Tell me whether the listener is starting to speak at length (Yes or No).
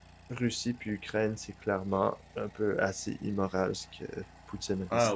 Yes